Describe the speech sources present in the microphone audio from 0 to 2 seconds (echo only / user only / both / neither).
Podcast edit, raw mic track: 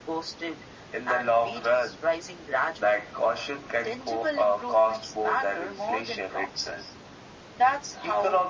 echo only